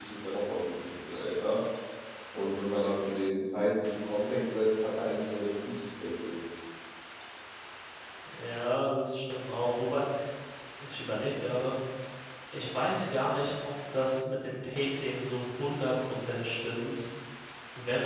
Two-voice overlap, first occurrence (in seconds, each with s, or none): none